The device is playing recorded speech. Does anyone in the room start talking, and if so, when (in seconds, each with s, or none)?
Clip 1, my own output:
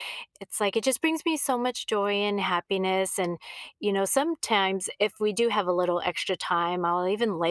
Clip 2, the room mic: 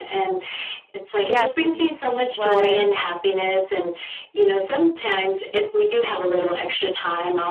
1.2 s